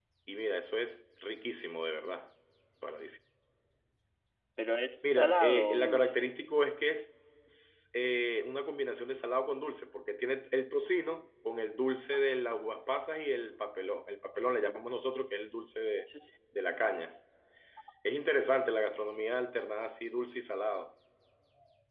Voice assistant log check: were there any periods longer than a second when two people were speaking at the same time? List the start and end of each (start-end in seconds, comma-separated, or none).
5.0-6.3